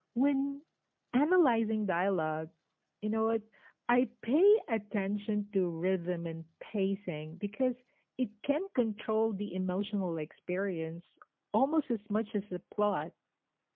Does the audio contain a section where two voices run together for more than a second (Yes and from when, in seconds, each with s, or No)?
No